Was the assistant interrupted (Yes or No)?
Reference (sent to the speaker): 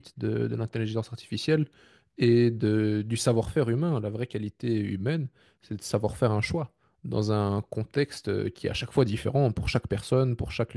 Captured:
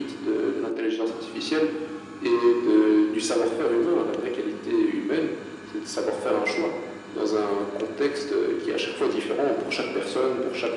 No